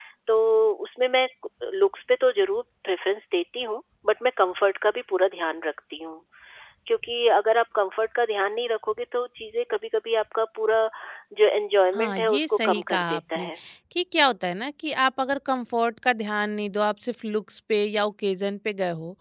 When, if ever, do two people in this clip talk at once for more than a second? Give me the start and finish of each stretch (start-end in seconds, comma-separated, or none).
11.9-13.5